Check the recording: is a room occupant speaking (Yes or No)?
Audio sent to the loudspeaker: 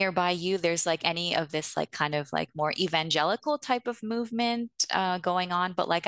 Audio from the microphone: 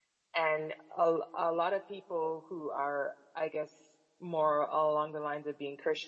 Yes